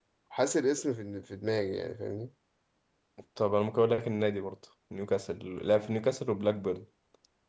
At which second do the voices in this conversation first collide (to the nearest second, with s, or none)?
none